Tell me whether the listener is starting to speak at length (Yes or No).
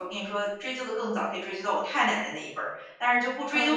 No